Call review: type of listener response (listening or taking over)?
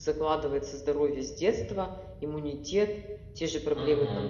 listening